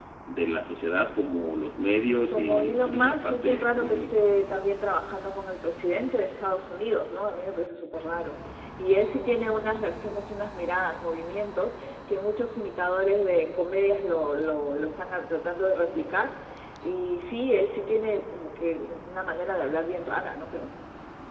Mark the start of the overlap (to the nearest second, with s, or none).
2 s